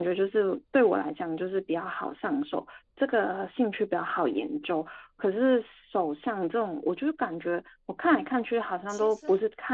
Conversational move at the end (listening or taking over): listening